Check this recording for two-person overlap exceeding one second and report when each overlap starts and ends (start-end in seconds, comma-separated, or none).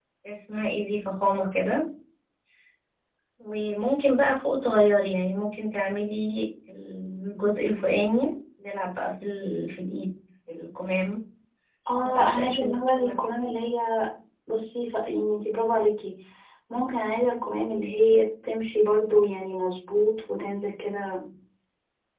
12.0-13.3